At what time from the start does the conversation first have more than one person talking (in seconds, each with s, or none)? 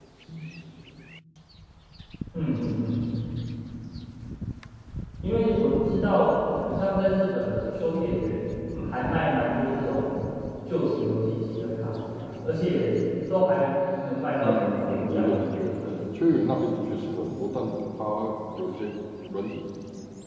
14.4 s